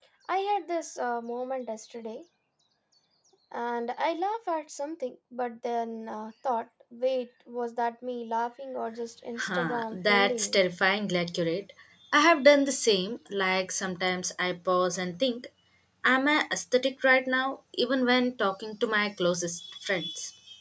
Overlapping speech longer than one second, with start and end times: 9.4-10.6

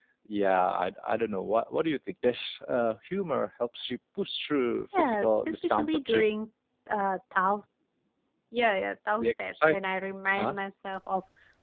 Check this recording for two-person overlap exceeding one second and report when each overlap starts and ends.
4.9-6.2

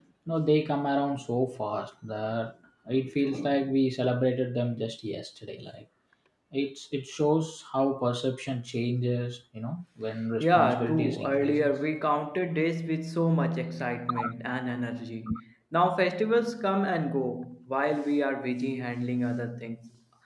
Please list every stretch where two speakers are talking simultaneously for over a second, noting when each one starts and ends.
10.4-11.7

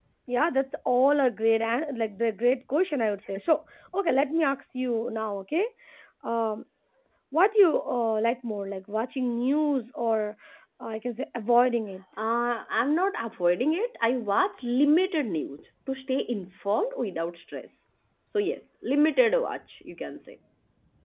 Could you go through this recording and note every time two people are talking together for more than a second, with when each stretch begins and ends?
none

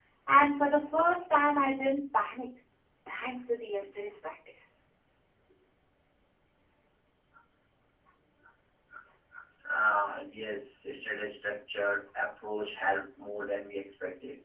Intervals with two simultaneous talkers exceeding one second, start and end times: none

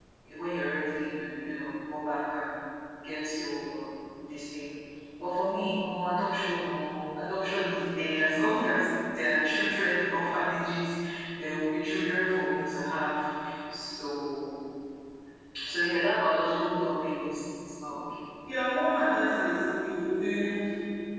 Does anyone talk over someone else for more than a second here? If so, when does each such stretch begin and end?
none

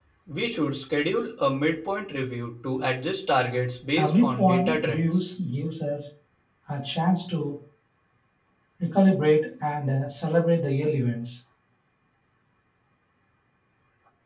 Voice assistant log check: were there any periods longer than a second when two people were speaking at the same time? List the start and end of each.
4.0-5.2

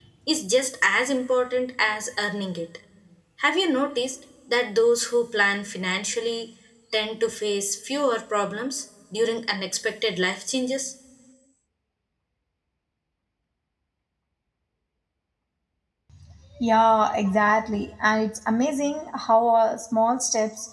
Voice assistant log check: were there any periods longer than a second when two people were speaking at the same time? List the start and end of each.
none

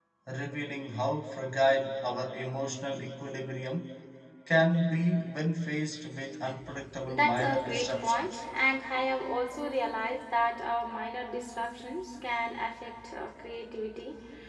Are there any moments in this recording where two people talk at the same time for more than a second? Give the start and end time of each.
7.1-8.4

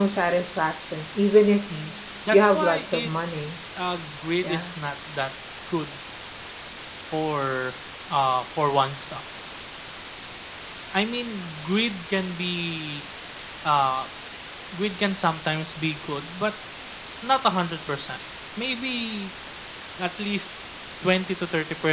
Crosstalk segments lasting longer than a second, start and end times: 2.3-3.6

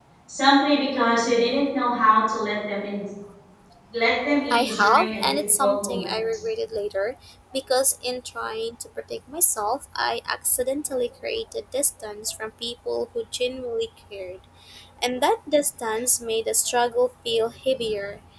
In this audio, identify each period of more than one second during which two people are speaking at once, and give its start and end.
4.5-6.1

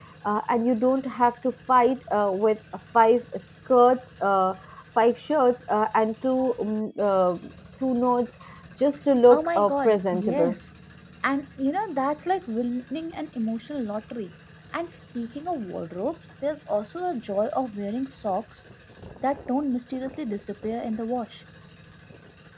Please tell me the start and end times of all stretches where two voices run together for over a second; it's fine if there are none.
9.3-10.6

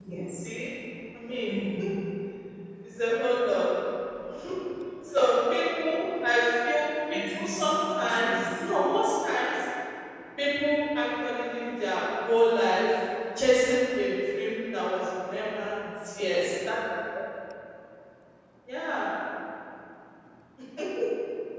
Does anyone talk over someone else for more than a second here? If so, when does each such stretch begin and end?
7.1-8.6

